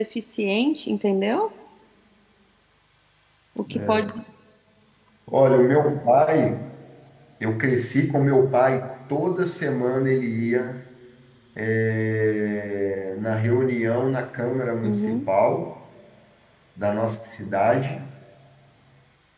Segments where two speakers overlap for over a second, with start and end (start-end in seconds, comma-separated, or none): none